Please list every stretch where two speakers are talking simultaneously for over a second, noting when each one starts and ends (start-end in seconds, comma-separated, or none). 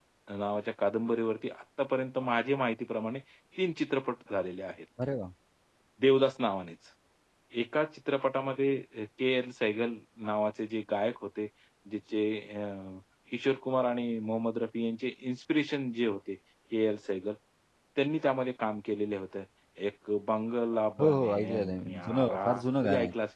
21.0-22.4